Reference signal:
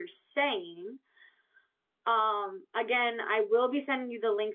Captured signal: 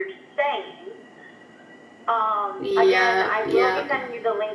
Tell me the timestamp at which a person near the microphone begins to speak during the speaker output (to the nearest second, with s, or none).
3 s